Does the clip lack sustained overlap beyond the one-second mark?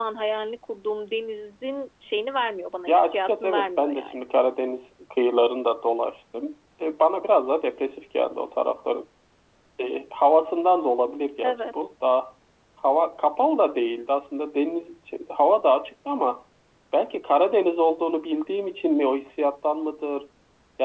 No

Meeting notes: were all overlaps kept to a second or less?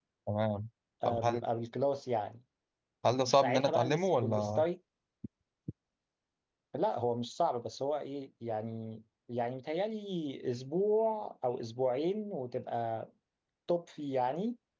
No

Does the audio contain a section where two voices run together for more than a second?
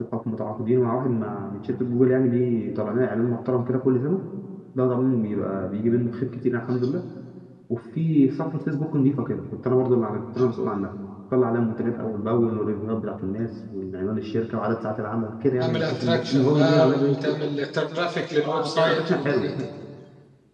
Yes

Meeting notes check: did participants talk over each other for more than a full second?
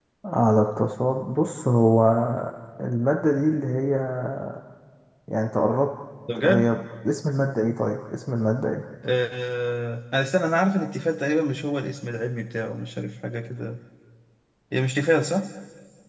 No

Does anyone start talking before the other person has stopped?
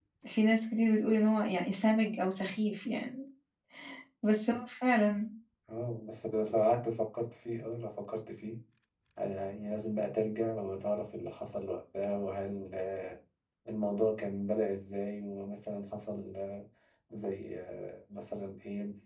No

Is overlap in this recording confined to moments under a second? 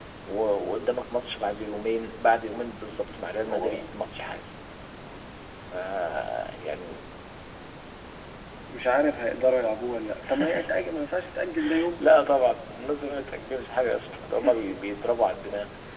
Yes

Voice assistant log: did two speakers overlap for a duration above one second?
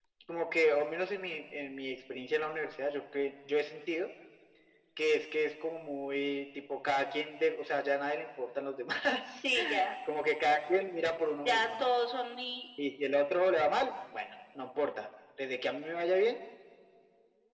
No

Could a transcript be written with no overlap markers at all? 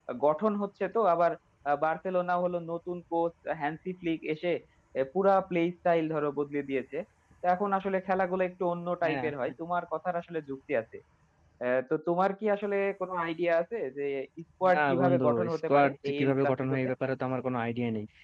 No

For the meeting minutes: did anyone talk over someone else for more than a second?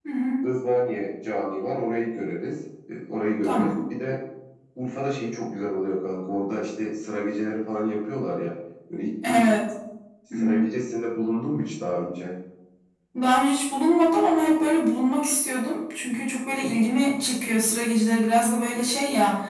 No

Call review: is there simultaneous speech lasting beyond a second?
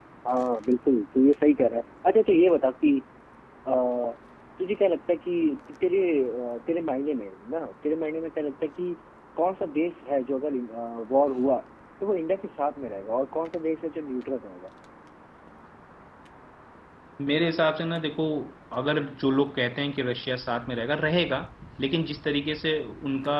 No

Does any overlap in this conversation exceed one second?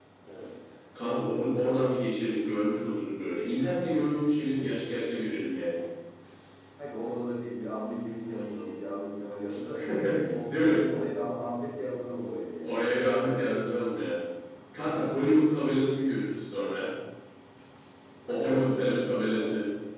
Yes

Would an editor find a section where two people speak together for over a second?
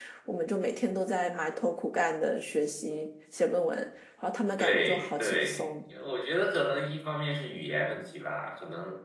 Yes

